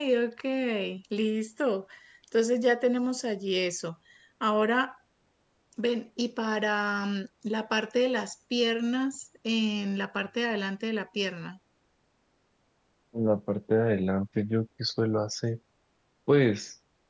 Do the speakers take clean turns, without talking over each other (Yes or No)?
Yes